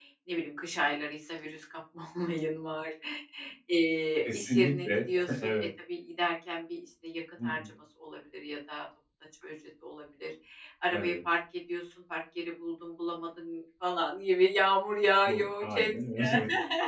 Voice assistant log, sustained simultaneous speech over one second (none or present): present